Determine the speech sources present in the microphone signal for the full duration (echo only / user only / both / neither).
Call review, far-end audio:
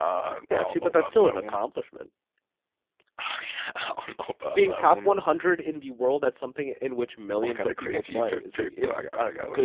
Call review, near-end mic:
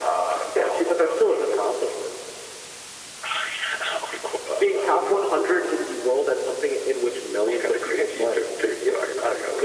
echo only